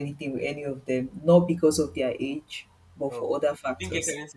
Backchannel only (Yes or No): No